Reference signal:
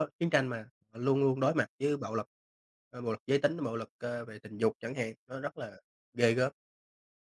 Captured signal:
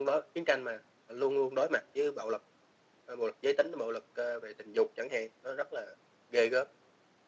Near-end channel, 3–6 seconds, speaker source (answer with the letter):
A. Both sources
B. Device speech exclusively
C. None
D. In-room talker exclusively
B